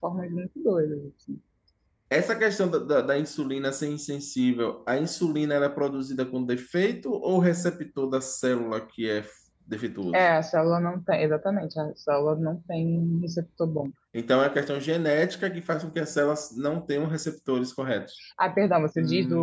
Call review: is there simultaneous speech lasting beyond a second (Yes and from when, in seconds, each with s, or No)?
No